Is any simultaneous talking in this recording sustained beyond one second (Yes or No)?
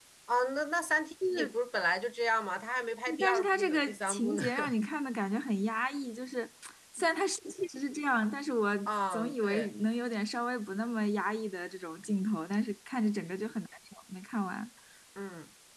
Yes